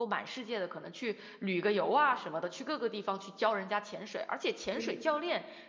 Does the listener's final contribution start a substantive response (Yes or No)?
No